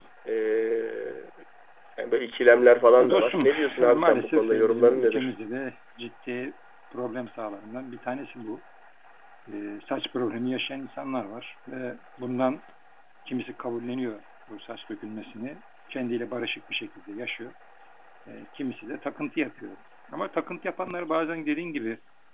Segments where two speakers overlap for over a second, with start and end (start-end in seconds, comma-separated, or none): 3.0-5.3